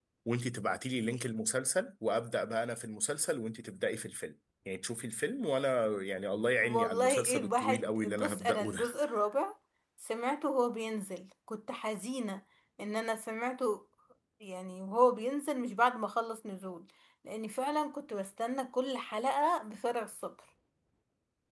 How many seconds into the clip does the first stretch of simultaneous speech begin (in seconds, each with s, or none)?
6.6 s